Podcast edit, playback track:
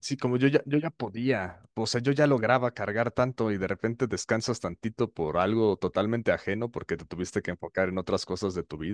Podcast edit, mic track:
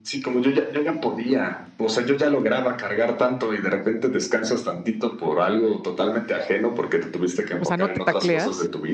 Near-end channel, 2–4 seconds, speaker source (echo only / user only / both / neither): echo only